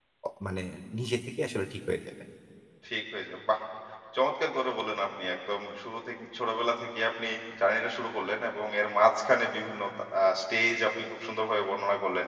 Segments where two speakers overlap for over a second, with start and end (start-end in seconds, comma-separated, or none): none